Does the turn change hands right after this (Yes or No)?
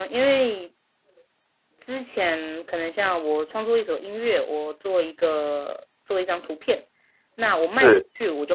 No